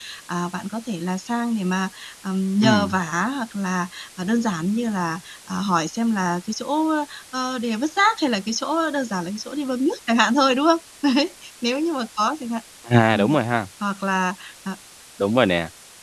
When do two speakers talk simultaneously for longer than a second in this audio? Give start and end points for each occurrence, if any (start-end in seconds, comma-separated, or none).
none